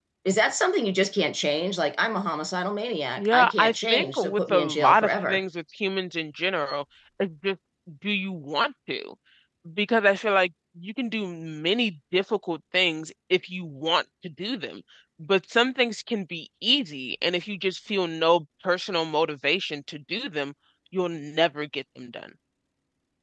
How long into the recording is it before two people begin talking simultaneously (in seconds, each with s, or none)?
3.2 s